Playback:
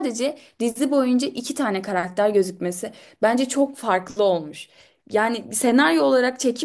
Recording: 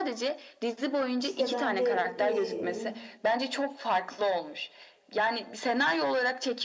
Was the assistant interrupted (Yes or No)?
Yes